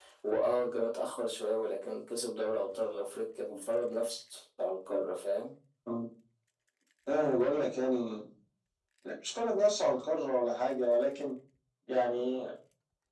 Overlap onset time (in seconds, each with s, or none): none